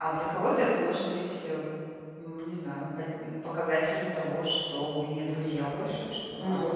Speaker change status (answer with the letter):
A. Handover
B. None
A